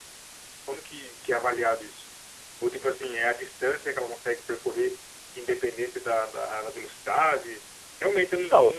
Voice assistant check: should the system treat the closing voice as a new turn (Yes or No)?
Yes